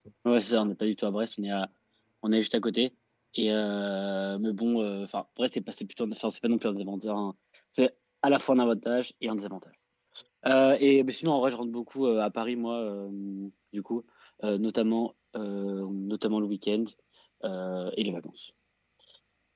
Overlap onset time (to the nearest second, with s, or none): none